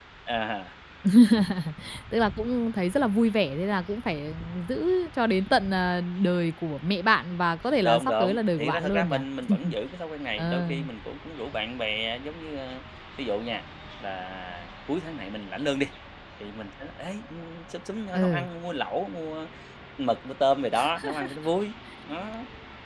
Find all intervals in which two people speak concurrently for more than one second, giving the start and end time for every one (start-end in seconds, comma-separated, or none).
7.8-9.2